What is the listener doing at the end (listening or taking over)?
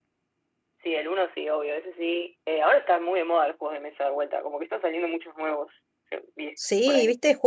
taking over